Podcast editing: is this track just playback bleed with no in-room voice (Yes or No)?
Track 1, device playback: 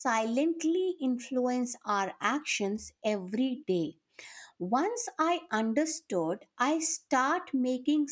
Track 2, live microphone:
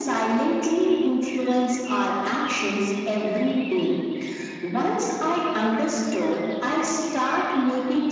Yes